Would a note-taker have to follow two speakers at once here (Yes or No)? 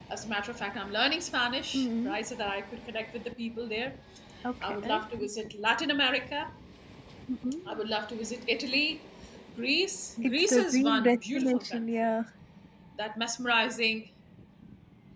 Yes